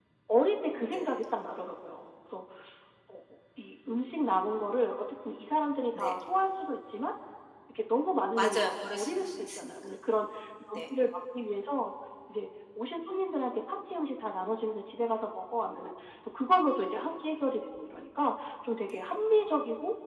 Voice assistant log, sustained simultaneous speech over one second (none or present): present